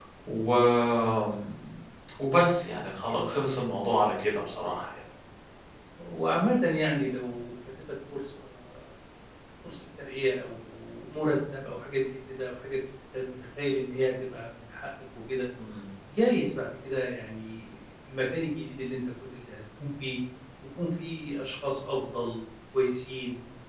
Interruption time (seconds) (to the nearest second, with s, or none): none